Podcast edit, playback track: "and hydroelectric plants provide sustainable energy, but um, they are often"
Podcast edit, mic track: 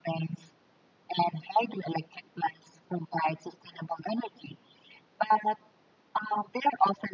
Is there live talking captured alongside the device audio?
No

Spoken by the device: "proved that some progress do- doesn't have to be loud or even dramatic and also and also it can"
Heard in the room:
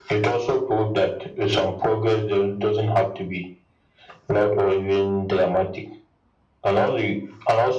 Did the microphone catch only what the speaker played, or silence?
Yes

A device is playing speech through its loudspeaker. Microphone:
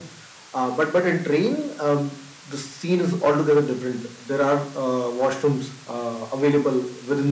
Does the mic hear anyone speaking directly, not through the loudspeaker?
No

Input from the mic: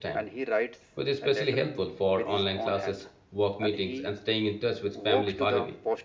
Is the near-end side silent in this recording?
No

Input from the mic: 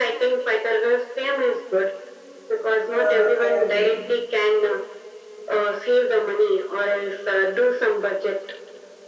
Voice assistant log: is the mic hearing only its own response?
No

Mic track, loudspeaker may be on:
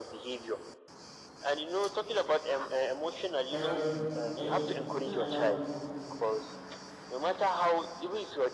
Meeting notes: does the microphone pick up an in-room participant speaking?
Yes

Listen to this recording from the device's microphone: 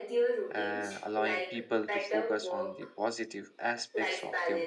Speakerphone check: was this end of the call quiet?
No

